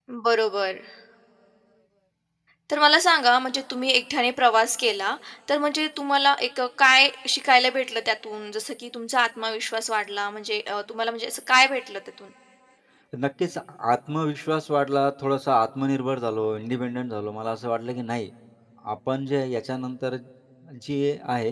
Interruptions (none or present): none